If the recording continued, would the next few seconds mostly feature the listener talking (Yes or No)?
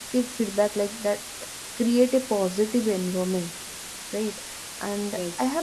No